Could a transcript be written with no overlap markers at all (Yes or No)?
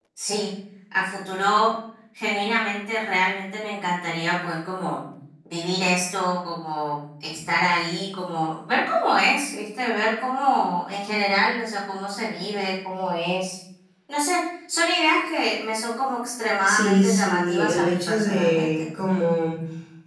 No